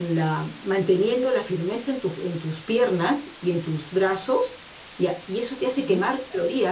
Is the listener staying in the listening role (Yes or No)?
Yes